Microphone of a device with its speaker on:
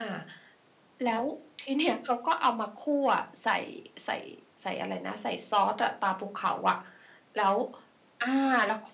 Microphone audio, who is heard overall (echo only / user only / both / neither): echo only